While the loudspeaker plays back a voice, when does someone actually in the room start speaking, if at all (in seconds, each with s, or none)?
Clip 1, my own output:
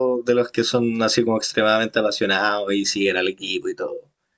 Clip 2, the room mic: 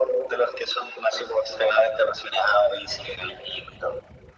none